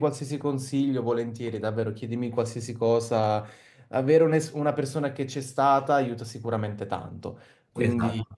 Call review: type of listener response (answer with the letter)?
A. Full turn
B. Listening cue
B